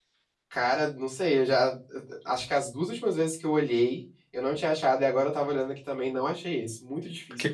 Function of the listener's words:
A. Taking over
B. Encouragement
A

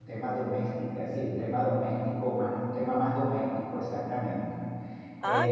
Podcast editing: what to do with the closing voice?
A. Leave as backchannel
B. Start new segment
B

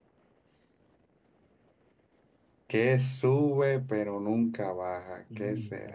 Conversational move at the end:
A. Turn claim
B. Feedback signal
B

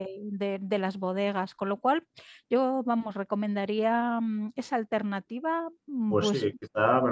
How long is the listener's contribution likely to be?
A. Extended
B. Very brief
A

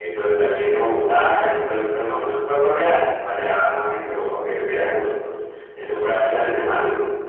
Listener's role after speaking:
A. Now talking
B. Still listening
B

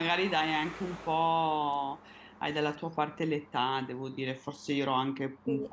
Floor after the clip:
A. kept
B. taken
A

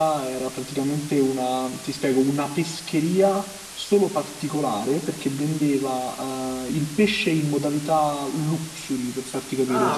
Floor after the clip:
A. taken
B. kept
B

